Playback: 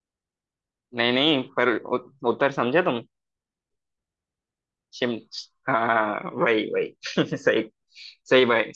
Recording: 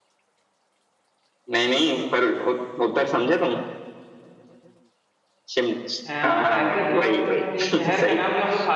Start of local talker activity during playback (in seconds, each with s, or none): 6.0 s